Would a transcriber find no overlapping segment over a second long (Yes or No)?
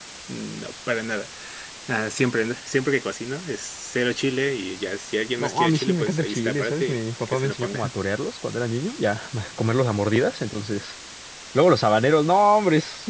No